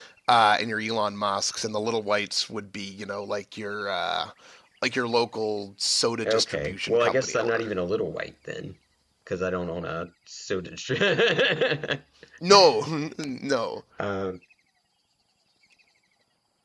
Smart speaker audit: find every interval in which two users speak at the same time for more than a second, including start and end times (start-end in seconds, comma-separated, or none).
6.2-7.7